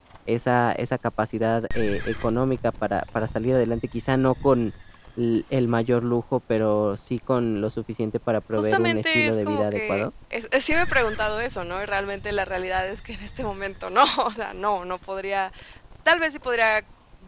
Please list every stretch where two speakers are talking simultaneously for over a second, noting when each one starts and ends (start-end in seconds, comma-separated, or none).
8.5-10.1